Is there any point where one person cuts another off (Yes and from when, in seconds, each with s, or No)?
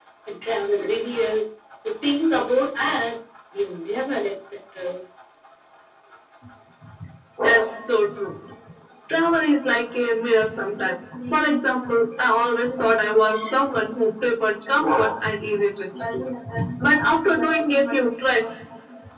No